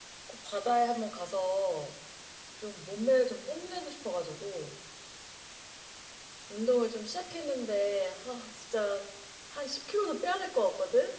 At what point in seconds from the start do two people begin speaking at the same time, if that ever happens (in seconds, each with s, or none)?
none